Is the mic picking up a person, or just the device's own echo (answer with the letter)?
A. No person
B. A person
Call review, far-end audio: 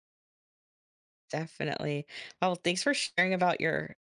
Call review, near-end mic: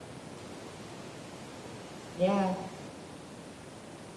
B